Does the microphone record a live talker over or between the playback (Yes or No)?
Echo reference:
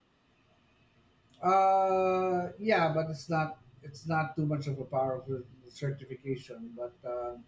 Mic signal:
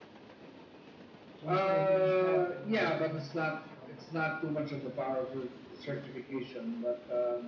Yes